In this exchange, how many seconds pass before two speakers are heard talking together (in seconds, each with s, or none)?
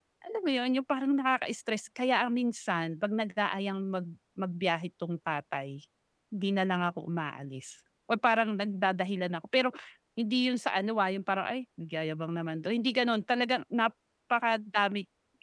none